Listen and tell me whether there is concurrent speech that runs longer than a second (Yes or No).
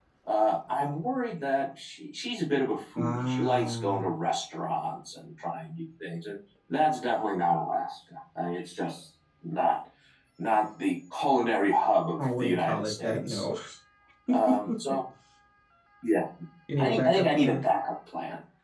Yes